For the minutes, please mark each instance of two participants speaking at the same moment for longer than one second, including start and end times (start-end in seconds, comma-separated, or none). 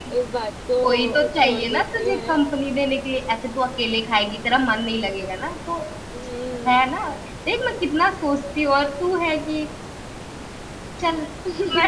0.8-2.4